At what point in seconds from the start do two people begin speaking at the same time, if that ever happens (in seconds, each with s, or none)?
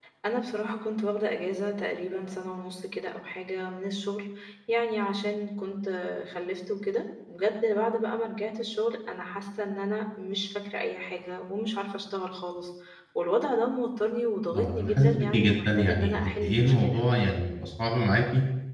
14.5 s